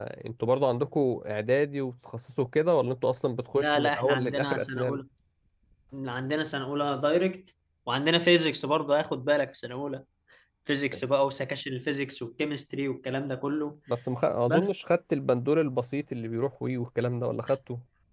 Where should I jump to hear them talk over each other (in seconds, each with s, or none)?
3.6 s